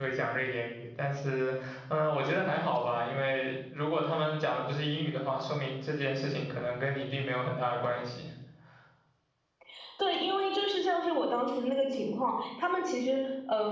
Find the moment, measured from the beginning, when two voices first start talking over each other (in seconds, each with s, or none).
none